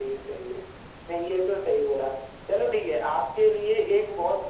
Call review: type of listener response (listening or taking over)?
listening